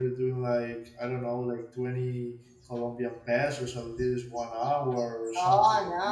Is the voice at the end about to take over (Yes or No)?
Yes